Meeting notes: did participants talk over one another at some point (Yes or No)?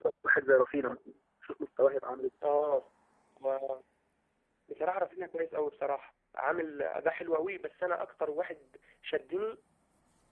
No